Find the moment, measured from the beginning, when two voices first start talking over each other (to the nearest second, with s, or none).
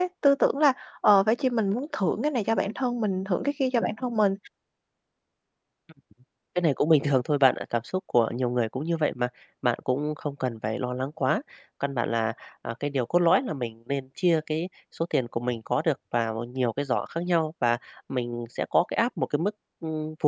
none